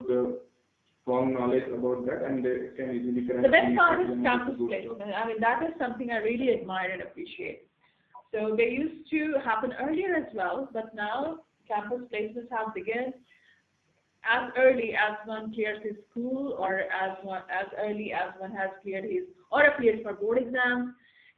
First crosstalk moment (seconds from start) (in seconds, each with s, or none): 3.4 s